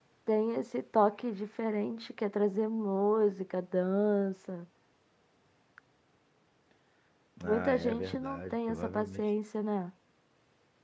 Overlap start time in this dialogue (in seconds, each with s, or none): 7.4 s